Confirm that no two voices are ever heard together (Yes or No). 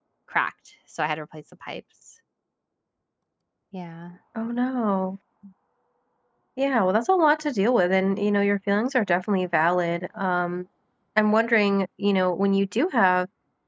Yes